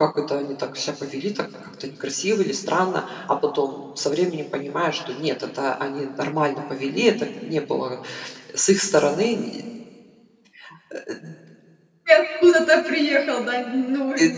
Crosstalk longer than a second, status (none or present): none